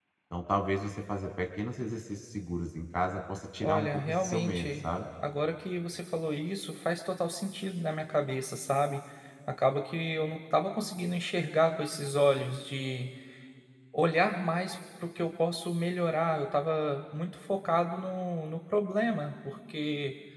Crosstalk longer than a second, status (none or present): present